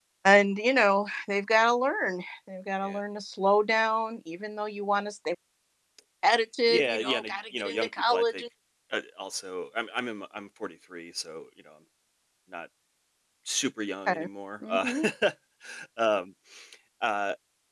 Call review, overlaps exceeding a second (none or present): present